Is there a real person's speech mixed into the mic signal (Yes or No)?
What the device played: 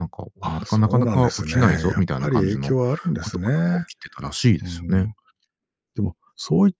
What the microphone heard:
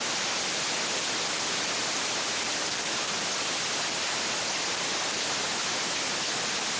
No